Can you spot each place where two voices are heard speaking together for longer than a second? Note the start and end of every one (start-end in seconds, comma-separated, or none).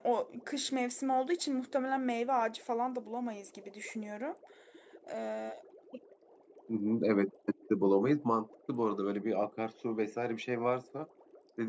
none